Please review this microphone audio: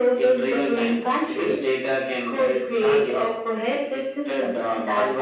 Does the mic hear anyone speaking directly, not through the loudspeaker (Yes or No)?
No